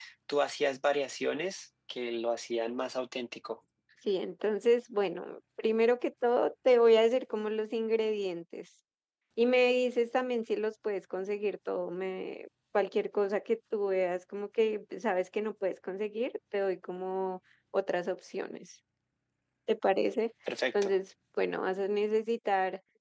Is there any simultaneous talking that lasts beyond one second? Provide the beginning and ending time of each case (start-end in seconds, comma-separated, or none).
none